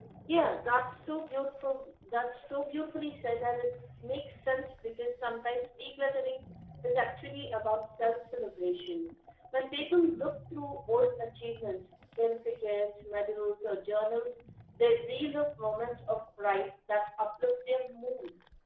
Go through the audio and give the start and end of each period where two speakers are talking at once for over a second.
none

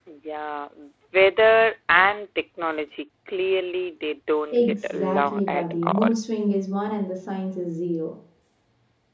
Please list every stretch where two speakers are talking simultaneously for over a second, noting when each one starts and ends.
4.5-6.1

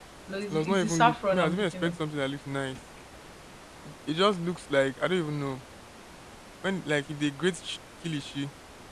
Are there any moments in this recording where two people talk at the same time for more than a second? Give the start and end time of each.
0.5-1.9

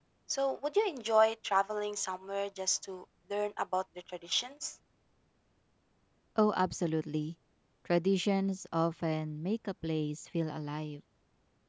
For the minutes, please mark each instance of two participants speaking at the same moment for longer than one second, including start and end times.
none

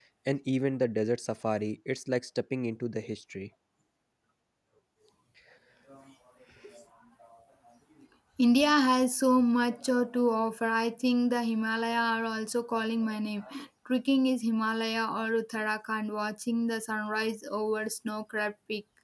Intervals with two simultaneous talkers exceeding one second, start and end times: none

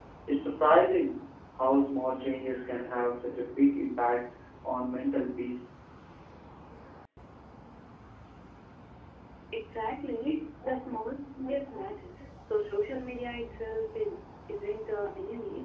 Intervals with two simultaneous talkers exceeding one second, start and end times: none

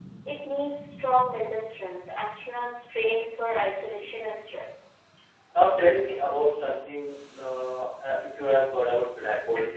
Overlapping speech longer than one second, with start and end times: none

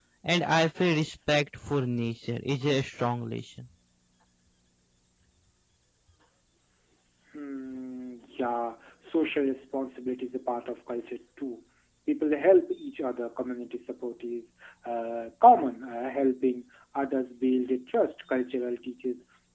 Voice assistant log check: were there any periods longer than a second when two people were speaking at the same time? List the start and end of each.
none

